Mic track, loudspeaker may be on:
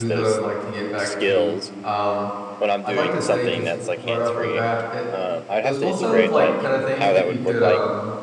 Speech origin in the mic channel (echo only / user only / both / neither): both